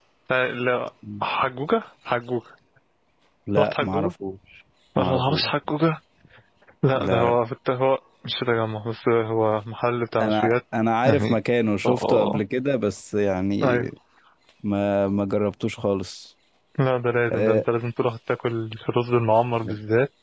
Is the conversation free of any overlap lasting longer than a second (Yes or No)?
Yes